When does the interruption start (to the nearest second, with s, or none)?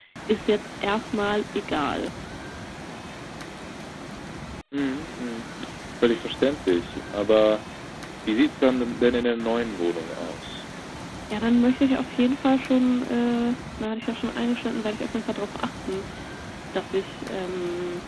none